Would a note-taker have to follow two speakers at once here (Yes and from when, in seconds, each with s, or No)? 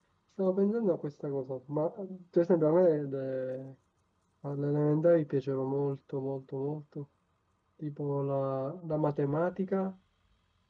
No